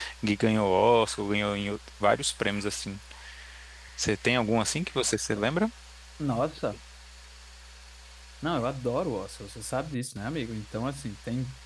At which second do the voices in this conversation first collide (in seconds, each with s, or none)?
none